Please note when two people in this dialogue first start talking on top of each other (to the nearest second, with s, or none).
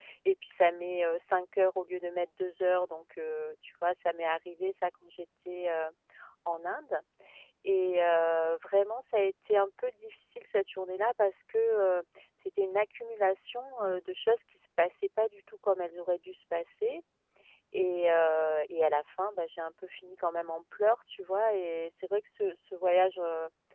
none